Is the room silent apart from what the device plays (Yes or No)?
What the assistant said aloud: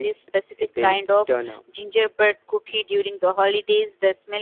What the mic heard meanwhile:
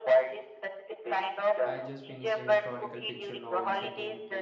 No